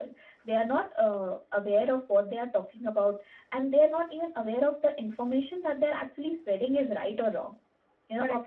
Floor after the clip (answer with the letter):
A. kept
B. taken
A